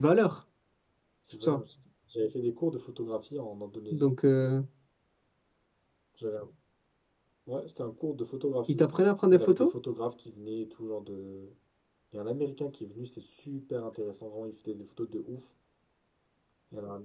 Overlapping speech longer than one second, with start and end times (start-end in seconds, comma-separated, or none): none